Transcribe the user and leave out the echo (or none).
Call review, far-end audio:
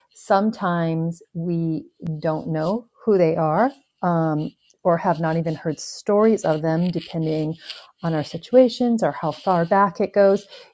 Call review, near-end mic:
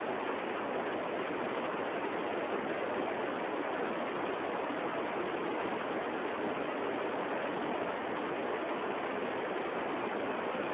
none